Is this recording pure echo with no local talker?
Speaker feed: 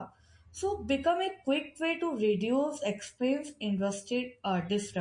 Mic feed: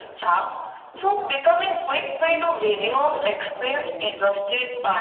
No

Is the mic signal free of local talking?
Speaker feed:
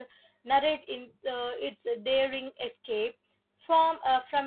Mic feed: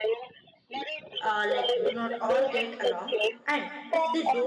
No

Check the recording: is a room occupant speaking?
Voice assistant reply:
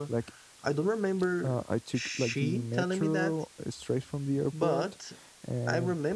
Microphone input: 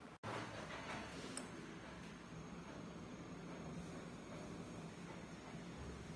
No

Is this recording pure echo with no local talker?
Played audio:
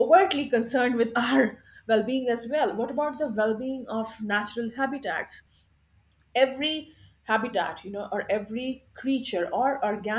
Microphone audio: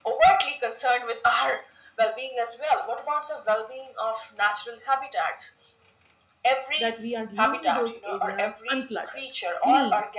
No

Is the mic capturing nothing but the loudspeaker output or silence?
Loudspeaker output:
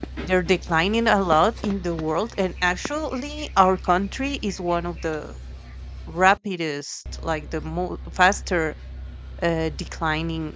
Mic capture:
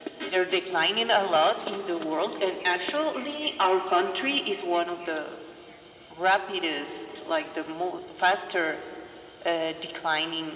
Yes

